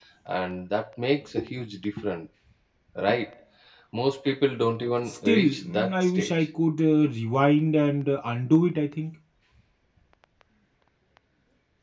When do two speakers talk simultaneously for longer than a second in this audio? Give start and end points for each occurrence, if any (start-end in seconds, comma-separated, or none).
5.0-6.3